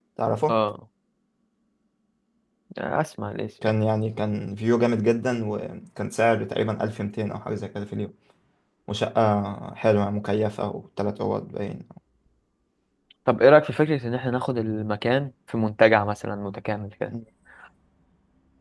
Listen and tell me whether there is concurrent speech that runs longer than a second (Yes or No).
No